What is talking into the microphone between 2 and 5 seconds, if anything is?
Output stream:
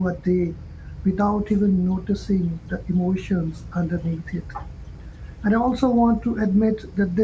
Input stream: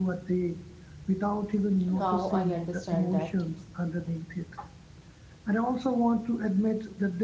both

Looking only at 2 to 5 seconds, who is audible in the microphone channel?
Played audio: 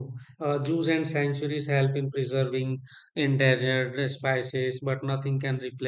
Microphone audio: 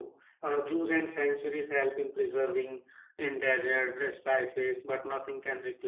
echo only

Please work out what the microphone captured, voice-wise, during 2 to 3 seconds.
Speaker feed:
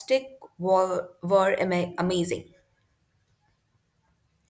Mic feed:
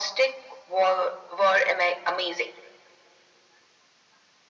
echo only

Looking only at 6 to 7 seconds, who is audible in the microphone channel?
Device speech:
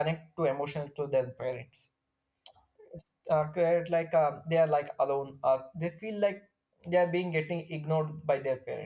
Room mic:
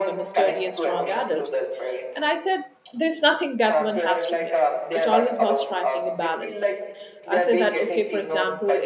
both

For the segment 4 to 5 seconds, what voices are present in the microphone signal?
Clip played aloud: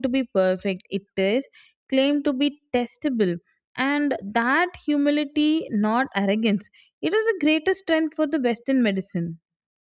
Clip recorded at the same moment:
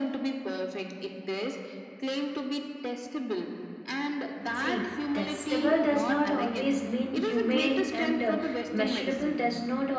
both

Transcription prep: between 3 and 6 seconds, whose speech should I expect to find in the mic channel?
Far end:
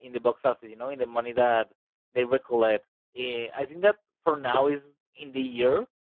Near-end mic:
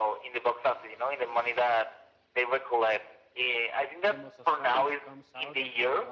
both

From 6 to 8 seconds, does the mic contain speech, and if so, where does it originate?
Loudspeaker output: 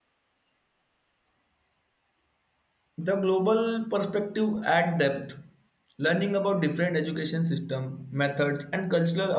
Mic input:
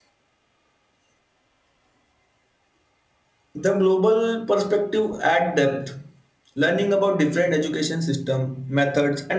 echo only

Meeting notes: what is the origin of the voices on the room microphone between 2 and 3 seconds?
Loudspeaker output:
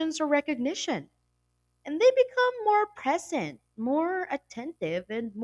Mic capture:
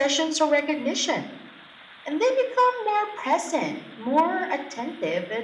echo only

